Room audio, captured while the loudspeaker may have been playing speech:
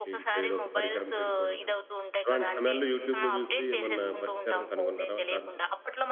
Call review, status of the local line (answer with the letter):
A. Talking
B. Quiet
A